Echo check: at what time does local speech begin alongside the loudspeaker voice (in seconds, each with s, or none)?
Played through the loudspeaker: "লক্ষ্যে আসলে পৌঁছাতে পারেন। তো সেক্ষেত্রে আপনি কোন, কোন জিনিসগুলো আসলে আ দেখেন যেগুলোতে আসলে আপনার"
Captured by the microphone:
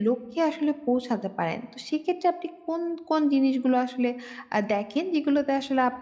none